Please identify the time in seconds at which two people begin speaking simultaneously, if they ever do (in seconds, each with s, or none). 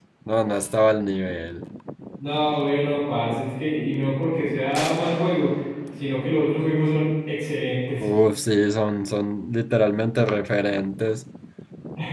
none